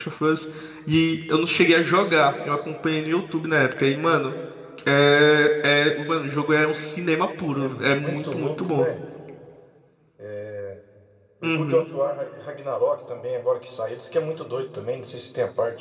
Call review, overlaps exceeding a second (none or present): present